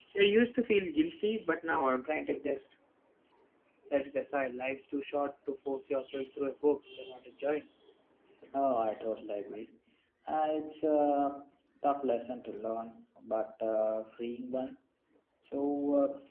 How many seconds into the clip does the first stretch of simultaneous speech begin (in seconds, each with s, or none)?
none